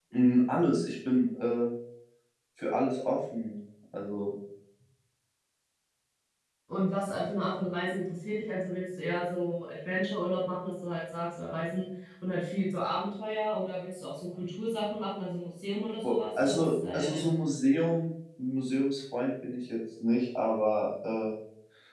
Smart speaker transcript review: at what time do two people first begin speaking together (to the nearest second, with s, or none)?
16 s